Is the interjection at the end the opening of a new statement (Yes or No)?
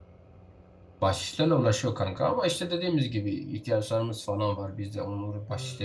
No